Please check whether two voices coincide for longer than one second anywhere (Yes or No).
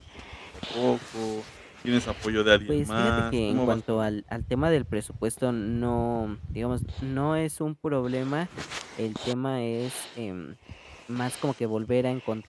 Yes